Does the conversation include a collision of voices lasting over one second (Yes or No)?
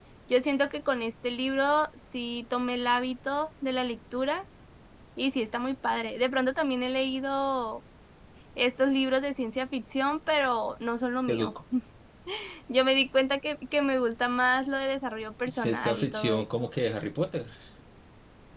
Yes